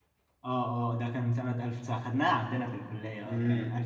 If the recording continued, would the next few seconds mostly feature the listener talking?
Yes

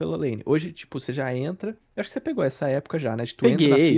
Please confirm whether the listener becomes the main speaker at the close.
No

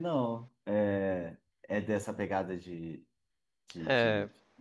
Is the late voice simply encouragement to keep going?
No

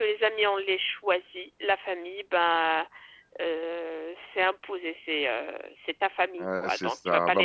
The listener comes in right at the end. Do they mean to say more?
Yes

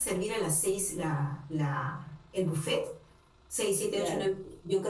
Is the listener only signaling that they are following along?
Yes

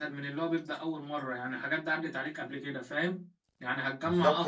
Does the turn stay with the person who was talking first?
Yes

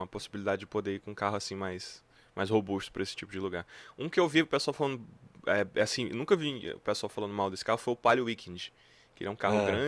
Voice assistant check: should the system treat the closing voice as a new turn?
No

